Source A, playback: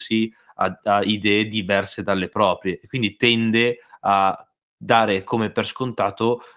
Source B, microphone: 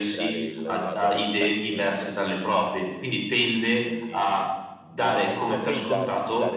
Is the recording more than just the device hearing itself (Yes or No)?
Yes